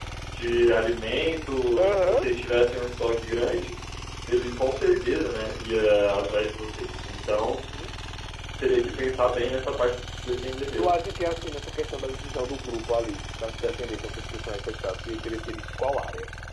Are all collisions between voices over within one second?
Yes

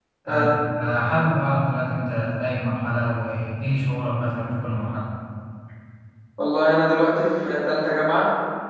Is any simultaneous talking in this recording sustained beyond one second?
No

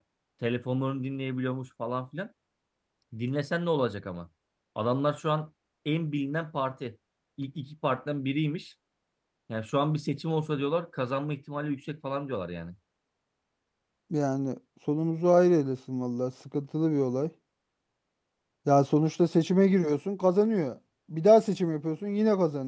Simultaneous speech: No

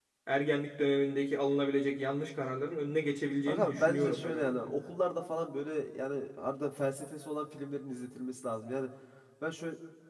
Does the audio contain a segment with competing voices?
Yes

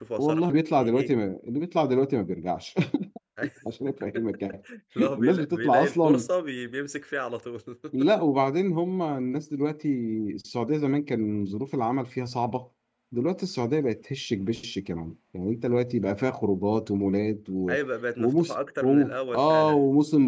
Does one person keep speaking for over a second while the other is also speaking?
Yes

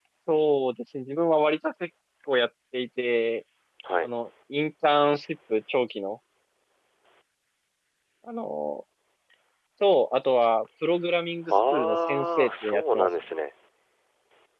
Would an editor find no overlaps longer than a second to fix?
No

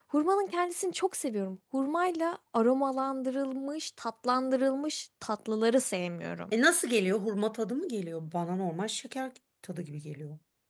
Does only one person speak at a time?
Yes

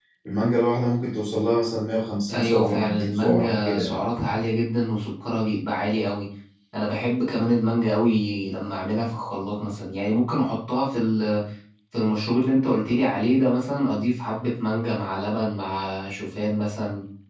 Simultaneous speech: Yes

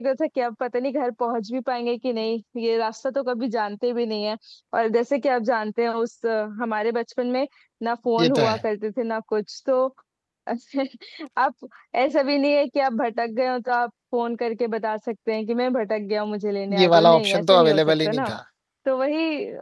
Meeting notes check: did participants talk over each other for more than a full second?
Yes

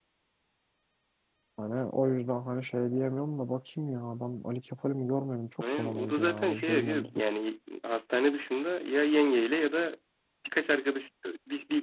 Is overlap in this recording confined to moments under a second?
No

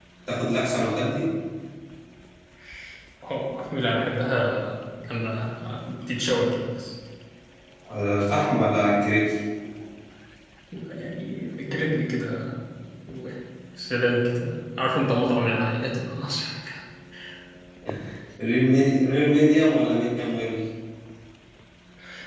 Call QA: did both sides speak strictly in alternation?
Yes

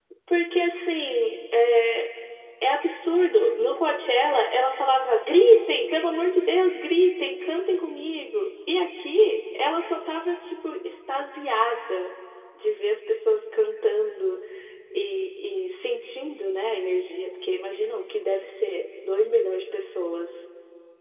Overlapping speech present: No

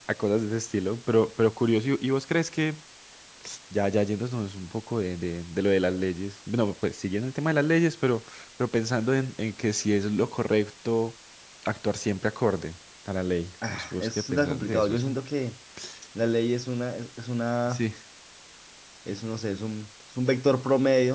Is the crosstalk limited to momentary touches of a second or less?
No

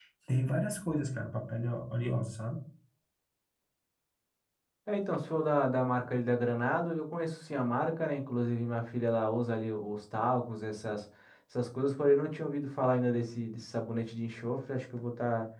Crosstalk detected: No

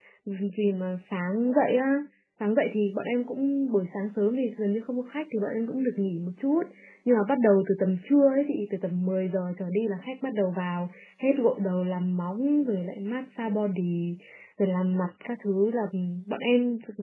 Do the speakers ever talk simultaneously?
No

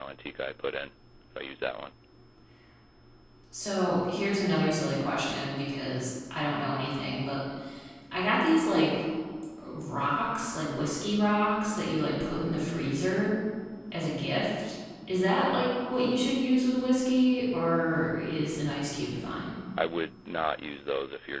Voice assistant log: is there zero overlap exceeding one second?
Yes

